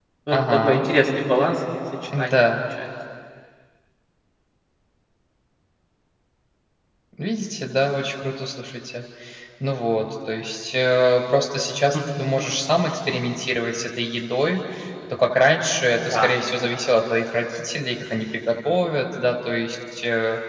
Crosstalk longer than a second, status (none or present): none